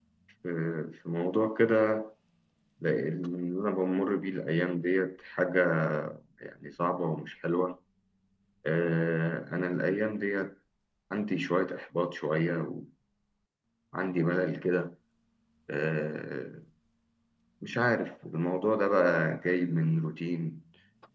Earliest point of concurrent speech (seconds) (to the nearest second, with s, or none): none